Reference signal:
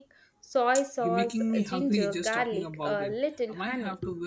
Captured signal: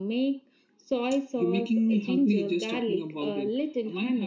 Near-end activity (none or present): none